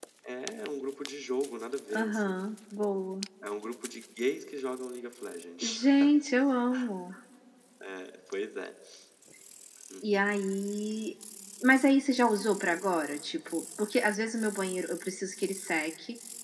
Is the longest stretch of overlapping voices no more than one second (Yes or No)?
Yes